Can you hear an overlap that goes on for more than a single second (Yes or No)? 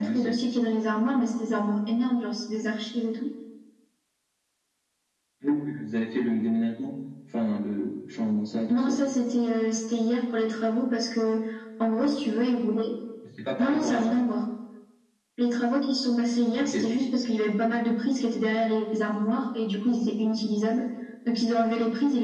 No